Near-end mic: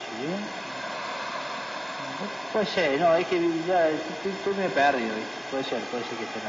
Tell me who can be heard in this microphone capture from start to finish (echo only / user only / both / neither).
echo only